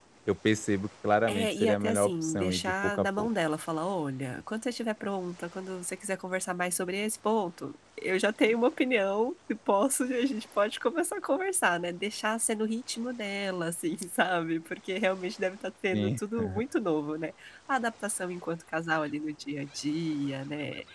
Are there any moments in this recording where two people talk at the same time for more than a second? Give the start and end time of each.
1.3-3.3

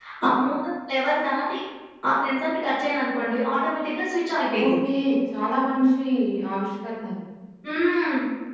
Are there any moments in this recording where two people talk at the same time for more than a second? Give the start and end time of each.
none

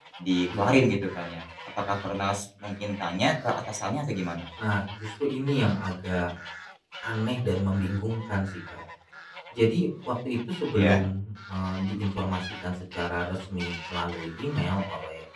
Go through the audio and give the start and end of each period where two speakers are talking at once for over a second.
none

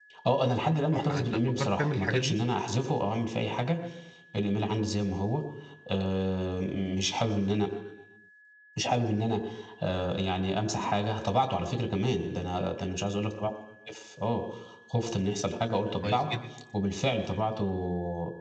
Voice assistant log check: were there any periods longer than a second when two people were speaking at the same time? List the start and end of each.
0.9-2.4

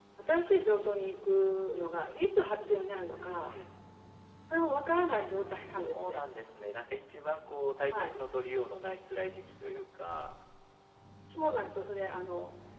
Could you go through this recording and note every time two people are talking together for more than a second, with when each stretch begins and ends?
none

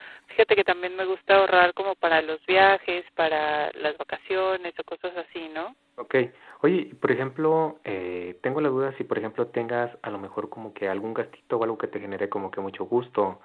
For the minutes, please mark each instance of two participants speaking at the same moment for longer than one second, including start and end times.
none

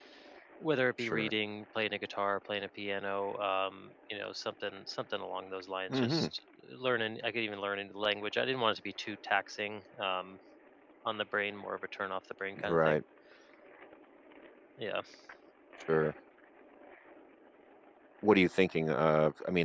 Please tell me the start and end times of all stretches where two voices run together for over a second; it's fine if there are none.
none

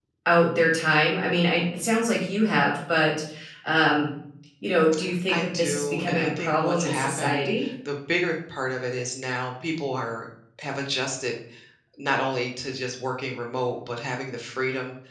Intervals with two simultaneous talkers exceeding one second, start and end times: 5.3-7.7

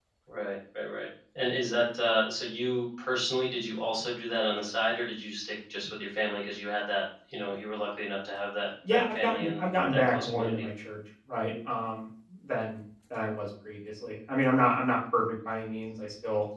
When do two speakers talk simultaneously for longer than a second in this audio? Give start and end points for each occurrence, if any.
8.9-10.7

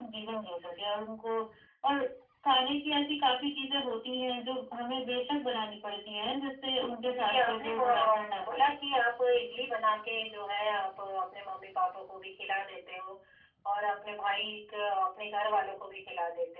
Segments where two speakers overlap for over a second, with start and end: 7.1-8.7

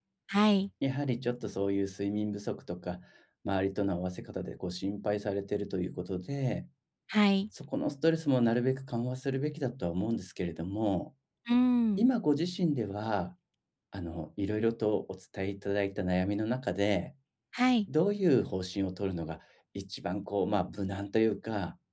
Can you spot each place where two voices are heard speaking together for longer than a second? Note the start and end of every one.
none

